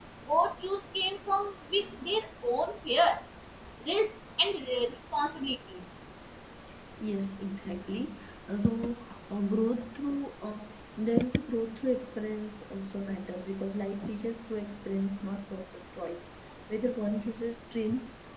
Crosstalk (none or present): none